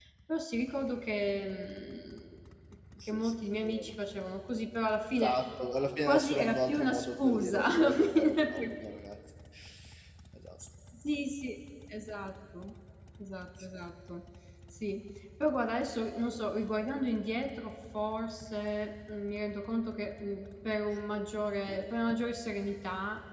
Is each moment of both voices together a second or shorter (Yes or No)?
No